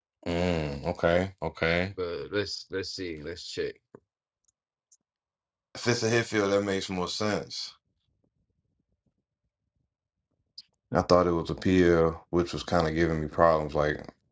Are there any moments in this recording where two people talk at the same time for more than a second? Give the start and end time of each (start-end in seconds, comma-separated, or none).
none